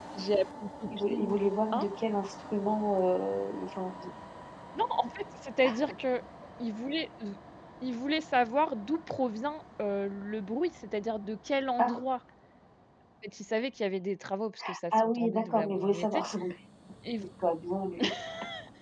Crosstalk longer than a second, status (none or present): present